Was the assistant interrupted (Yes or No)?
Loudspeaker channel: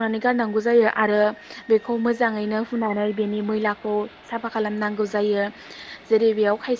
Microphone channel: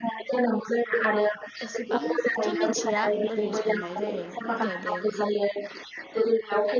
Yes